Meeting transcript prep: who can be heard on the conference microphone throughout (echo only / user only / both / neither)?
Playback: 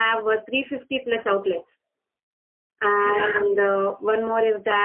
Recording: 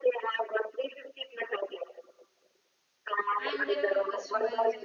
both